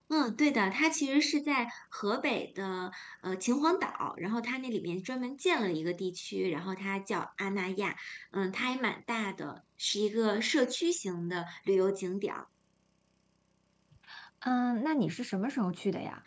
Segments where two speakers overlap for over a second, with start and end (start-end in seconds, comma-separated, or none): none